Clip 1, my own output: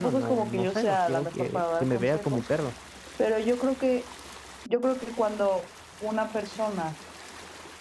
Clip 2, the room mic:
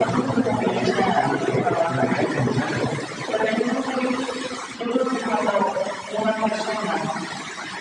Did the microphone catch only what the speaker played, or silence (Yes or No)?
Yes